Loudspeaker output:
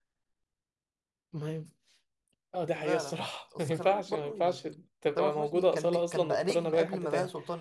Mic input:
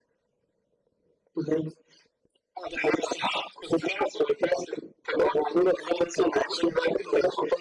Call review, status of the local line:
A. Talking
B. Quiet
B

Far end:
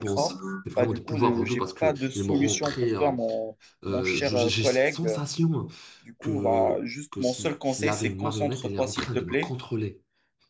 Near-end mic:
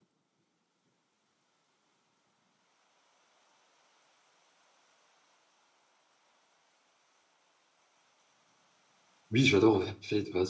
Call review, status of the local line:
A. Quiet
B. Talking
B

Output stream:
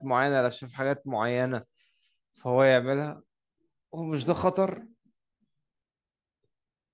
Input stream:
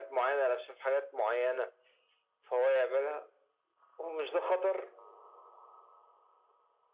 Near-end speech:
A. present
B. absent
B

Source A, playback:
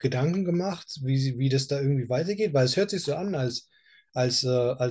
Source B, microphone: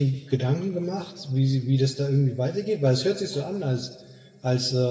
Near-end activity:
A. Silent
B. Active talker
A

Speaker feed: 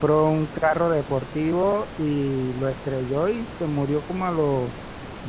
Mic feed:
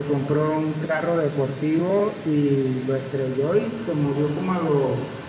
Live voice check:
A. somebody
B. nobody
B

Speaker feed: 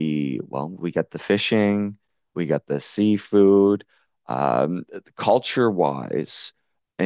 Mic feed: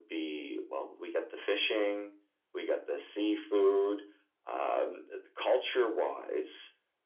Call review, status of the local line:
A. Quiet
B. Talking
A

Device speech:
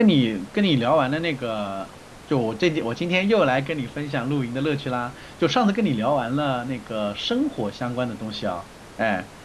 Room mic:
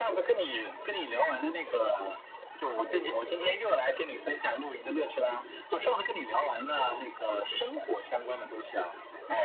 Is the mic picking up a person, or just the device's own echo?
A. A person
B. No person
B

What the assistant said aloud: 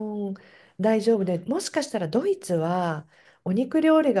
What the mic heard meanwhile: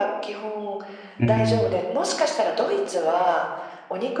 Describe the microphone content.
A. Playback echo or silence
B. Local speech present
B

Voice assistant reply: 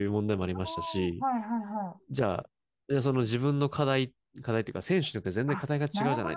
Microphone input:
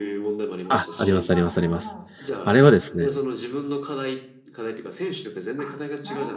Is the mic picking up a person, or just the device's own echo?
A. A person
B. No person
A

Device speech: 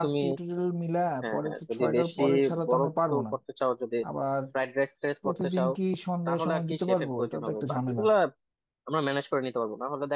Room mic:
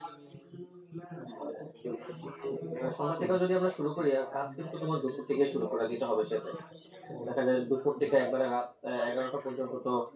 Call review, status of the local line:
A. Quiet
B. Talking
B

